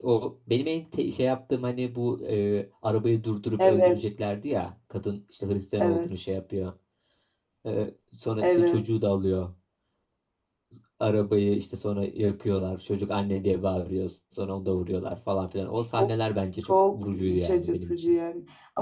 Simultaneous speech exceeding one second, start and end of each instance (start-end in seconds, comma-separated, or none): 16.7-18.1